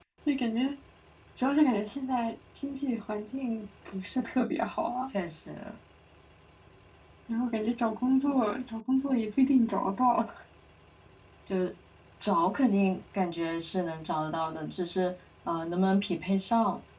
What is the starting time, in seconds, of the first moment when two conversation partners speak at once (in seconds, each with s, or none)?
none